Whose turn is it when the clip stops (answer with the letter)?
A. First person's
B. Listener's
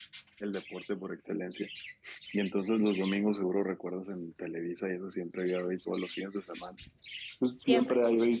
A